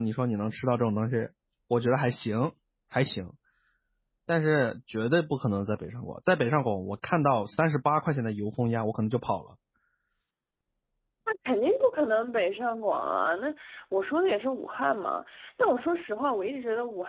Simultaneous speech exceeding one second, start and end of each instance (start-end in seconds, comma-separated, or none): none